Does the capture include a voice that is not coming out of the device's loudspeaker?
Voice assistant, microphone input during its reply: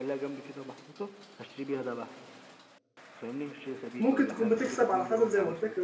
Yes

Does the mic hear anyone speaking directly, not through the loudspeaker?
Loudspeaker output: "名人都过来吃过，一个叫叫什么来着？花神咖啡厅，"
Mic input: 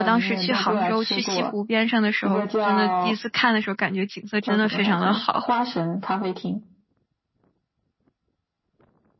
Yes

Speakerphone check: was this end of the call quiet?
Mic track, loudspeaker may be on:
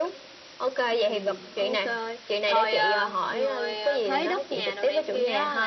No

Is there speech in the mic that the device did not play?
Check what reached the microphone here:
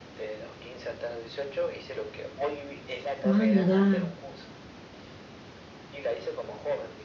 Yes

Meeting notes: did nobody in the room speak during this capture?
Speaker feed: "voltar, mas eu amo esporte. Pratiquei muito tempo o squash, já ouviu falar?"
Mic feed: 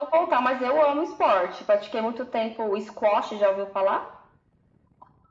Yes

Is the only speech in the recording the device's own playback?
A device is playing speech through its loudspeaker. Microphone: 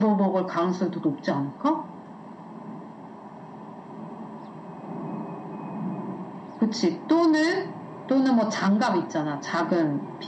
Yes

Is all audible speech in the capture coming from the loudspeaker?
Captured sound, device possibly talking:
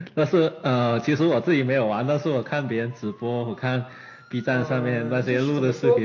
No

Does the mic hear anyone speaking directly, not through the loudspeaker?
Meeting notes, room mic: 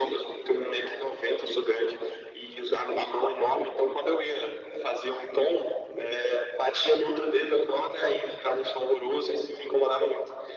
No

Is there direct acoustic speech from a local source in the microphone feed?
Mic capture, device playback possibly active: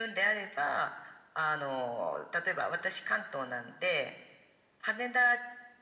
No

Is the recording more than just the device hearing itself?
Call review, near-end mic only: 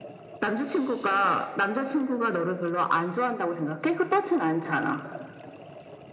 No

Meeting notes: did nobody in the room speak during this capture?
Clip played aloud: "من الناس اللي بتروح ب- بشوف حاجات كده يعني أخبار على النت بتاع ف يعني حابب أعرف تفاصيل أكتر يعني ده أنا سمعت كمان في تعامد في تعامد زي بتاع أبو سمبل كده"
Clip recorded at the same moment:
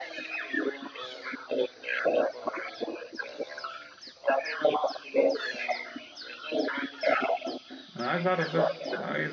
No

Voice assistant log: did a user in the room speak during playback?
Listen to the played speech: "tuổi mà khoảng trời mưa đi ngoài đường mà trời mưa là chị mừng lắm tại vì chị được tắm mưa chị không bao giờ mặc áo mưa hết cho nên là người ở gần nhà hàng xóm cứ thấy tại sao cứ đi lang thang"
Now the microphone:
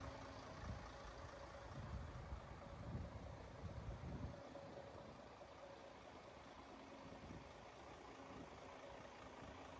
No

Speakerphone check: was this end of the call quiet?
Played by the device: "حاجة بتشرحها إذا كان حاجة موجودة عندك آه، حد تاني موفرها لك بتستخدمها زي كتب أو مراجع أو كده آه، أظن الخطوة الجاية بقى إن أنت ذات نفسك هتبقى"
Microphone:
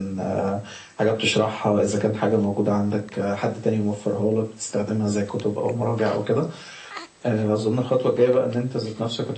Yes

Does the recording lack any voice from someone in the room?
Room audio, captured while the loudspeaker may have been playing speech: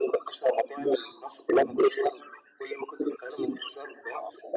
Yes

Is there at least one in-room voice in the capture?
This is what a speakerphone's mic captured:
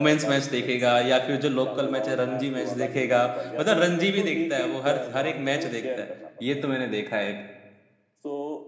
Yes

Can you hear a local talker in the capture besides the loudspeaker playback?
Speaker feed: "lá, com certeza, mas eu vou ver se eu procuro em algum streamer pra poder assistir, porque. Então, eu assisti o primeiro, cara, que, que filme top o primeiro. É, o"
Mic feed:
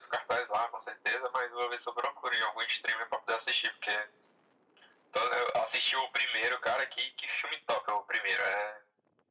No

